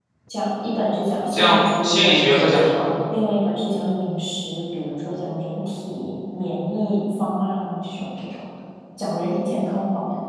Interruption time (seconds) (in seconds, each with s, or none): 1.3 s